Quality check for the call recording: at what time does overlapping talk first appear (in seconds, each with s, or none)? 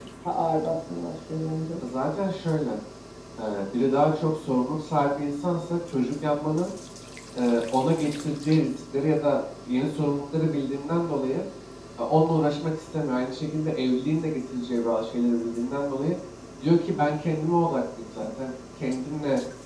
none